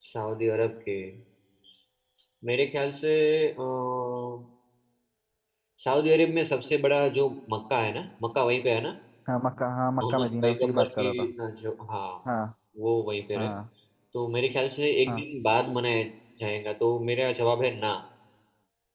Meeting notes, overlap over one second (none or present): present